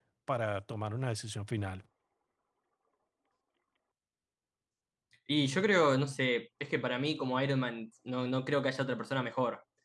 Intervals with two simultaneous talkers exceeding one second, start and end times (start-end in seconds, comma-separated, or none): none